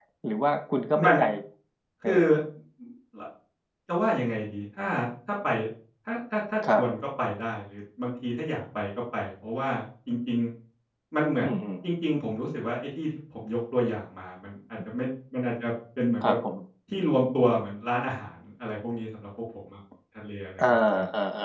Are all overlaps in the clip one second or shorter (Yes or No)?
Yes